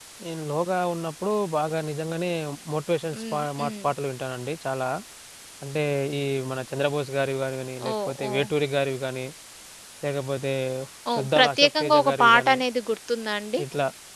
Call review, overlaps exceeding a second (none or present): present